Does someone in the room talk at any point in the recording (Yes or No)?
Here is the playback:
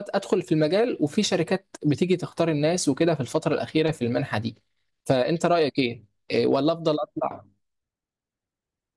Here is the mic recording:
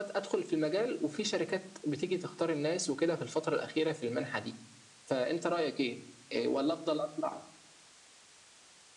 No